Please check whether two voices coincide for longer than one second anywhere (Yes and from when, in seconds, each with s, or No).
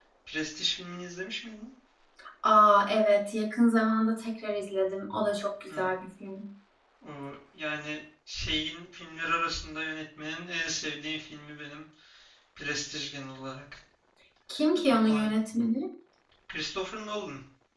No